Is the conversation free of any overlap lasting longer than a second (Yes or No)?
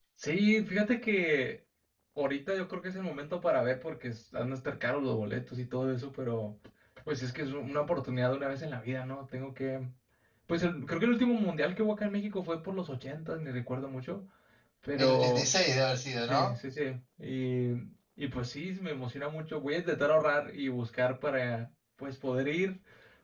Yes